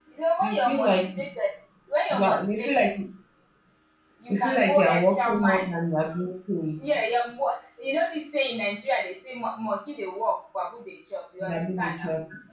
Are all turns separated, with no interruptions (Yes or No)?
No